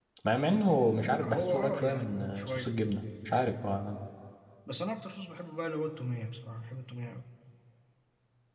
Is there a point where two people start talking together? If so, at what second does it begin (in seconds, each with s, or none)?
1.2 s